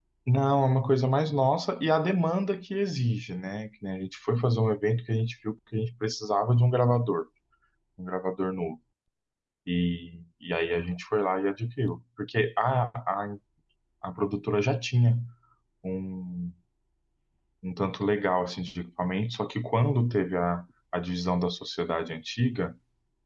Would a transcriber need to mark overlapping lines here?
No

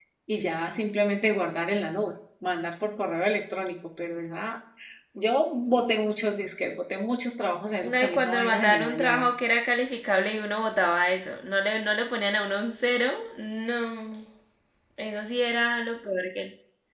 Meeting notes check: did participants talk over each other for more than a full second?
Yes, from 7.8 s

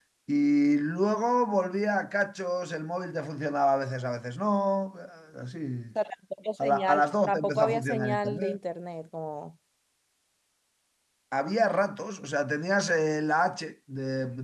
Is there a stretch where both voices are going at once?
Yes, from 6.6 s

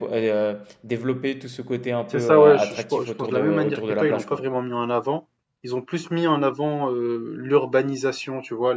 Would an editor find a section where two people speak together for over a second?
Yes, from 2.1 s

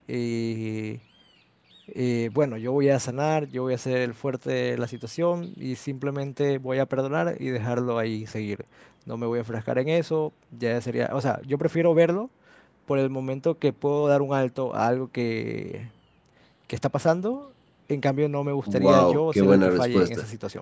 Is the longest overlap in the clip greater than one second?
Yes, from 18.7 s

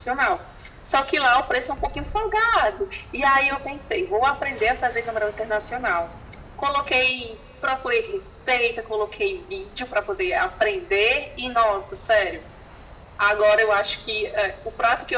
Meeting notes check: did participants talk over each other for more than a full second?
No

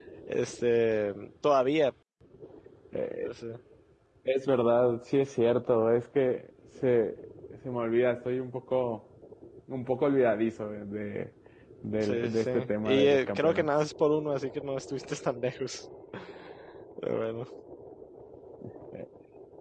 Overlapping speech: Yes, from 12.0 s

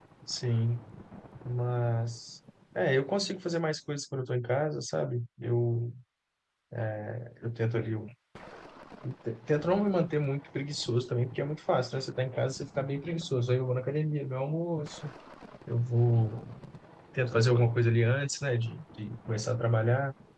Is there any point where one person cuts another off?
No

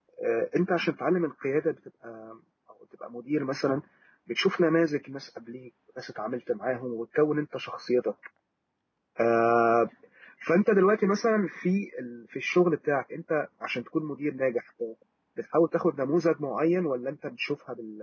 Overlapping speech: No

